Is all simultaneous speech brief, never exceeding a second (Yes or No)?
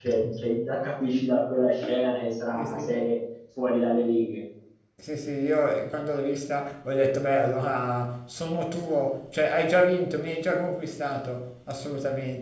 Yes